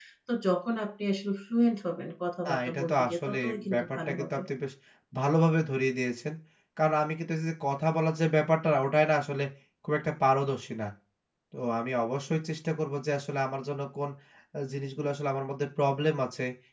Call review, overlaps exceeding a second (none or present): present